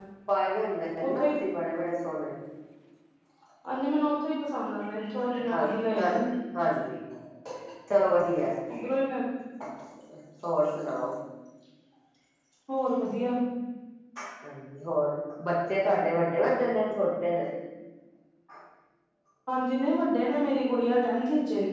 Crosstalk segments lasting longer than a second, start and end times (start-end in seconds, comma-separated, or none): none